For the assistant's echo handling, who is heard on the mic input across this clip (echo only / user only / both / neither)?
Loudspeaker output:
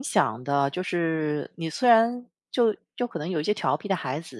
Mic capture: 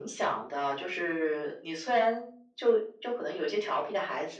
echo only